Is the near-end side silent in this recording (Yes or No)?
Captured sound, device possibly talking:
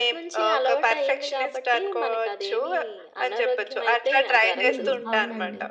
No